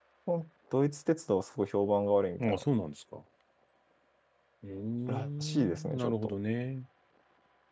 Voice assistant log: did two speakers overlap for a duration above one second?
Yes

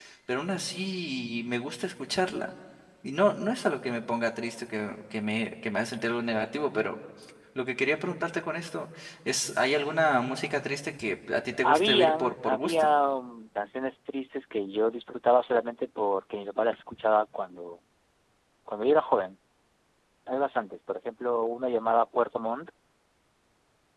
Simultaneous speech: Yes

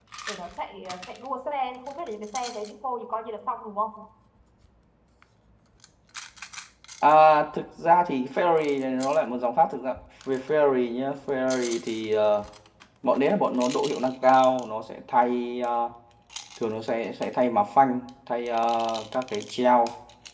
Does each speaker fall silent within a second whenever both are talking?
Yes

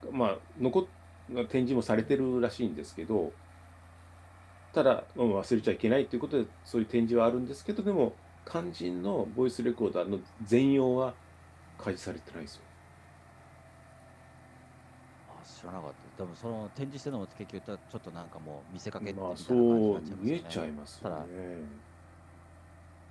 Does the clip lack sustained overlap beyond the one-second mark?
No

